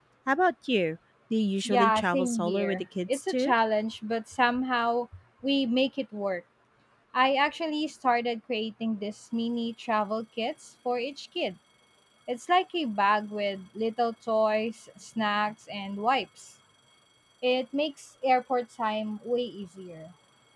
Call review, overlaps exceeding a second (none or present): present